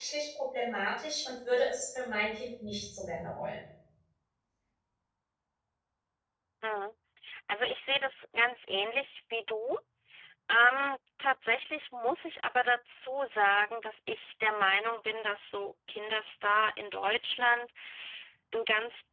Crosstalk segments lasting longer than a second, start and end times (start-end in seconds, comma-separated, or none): none